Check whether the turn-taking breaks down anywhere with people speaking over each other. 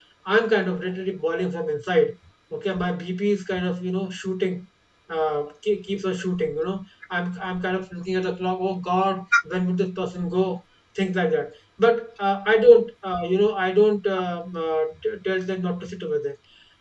No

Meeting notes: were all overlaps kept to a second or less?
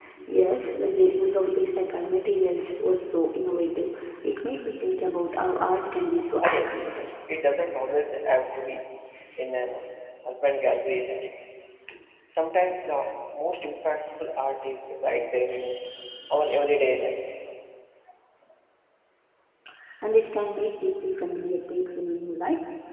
Yes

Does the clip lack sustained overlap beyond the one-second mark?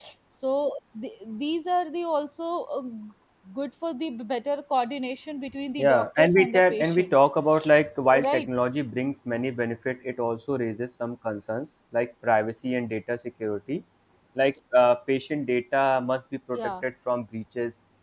No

